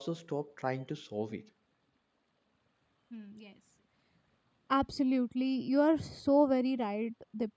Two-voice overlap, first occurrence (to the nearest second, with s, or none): none